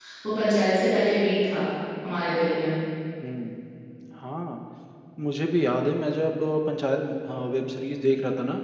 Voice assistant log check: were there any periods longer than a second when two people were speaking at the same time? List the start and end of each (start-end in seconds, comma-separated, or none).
none